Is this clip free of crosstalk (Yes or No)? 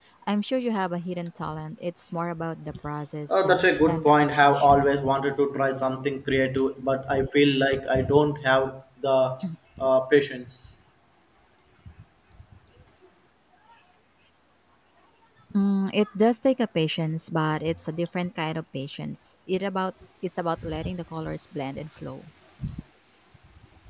No